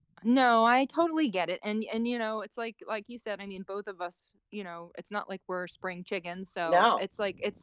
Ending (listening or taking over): listening